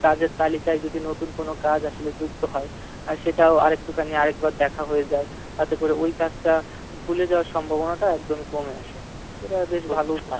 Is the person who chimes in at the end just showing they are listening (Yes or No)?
No